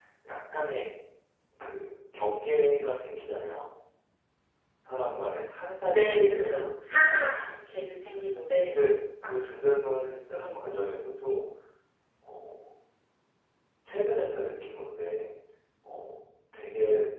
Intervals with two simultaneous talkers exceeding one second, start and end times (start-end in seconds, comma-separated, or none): 5.9-7.5